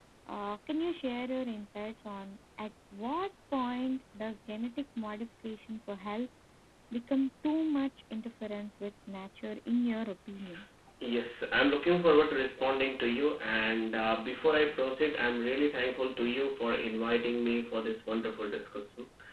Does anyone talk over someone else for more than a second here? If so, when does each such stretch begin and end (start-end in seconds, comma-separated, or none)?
none